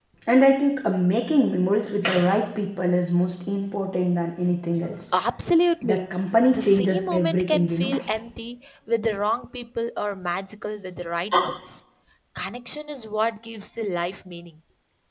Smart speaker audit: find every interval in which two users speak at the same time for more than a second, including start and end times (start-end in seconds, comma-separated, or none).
6.5-7.9